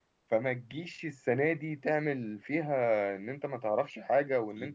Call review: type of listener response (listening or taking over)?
listening